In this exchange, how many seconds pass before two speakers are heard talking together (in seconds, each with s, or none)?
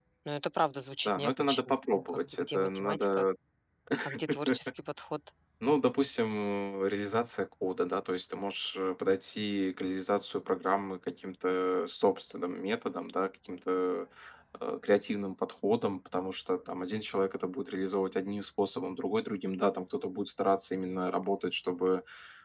1.1 s